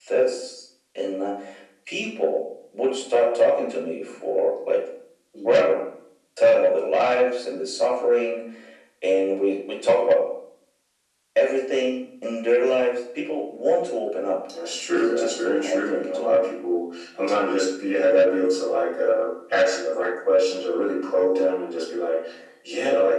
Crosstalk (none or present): present